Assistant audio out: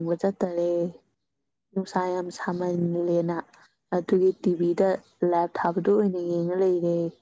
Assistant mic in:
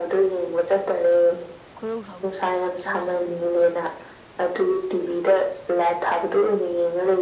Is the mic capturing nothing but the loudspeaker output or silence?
No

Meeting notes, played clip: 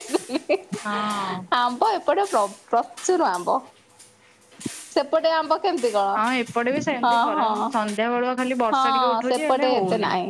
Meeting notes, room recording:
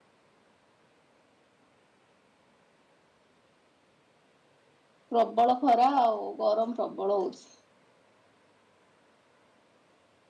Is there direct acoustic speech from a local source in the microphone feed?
Yes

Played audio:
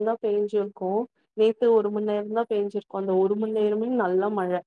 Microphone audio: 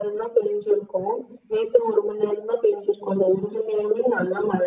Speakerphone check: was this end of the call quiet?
Yes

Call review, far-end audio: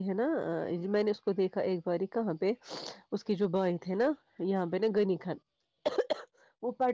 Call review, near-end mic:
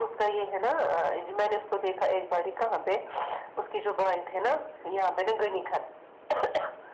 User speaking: No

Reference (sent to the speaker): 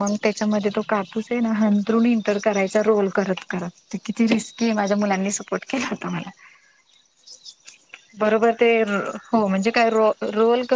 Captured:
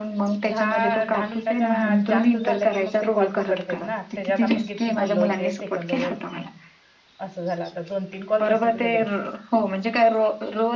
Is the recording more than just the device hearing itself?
Yes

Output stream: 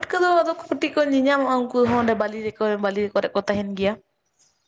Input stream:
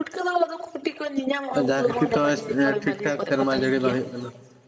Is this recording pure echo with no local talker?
No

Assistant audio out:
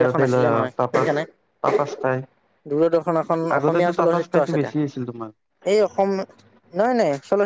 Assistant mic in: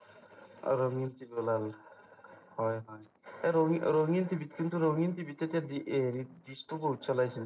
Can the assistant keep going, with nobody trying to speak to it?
No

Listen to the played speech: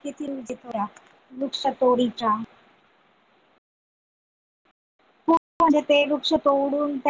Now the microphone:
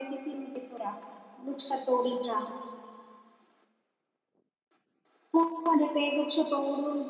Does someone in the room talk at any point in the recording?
No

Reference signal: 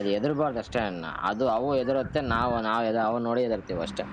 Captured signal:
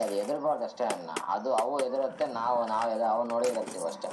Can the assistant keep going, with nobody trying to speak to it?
Yes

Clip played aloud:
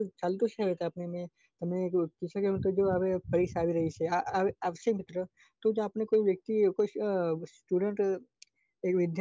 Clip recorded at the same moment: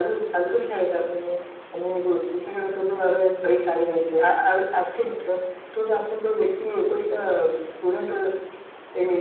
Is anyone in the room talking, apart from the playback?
No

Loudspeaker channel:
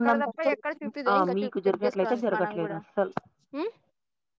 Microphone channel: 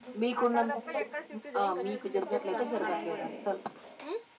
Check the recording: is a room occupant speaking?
Yes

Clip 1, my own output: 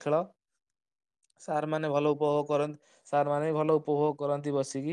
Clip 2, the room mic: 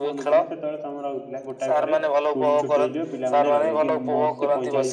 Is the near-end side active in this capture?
Yes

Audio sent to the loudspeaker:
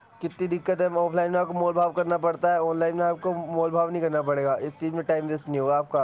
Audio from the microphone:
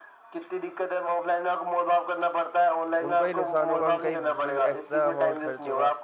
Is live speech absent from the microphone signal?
No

